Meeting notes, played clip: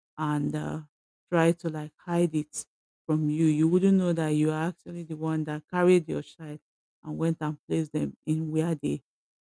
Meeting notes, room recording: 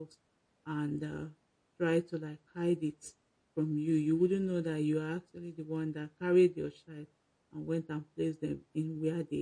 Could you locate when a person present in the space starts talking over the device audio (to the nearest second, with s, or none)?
none